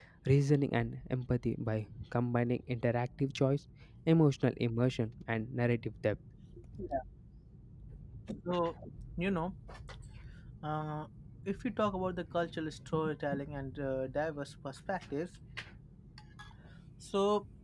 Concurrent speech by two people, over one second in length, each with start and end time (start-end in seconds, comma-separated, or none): none